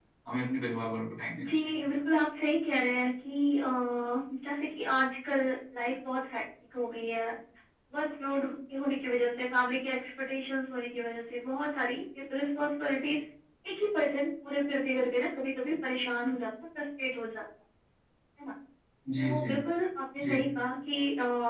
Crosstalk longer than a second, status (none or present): none